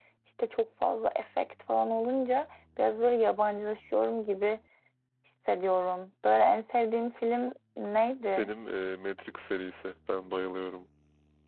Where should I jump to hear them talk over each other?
none

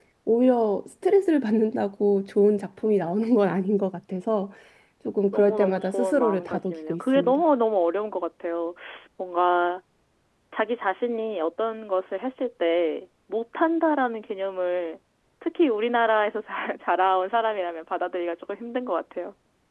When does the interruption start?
5.3 s

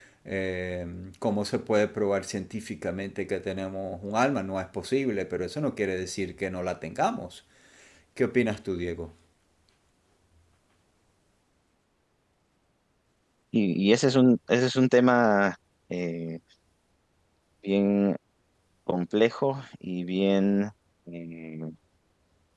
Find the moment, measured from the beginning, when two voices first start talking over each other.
none

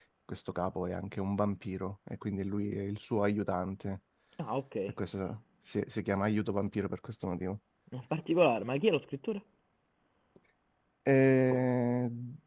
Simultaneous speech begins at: none

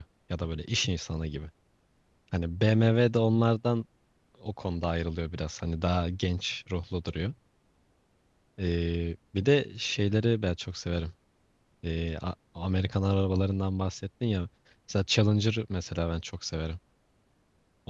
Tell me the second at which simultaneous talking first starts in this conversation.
none

